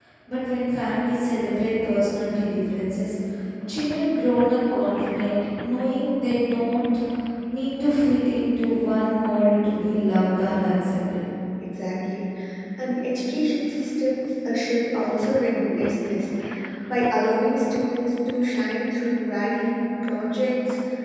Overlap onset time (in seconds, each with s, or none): none